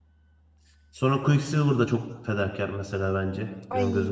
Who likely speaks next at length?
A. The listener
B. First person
A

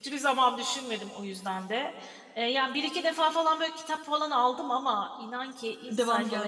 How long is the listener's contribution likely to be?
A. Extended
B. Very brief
B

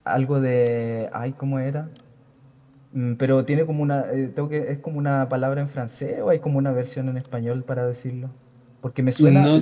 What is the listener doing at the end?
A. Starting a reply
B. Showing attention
A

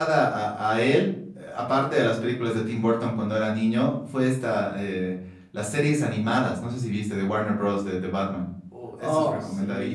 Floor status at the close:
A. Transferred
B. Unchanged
A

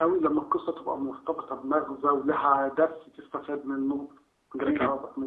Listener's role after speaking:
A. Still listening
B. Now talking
B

